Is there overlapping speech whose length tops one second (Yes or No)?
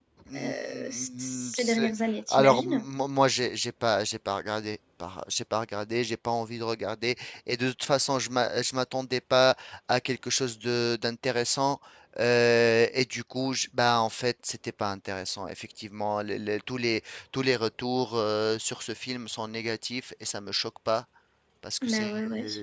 Yes